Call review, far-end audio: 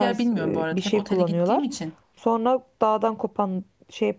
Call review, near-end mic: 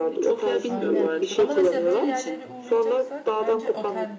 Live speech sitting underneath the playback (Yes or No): Yes